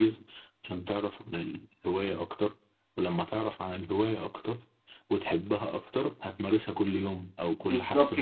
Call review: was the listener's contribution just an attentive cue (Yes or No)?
No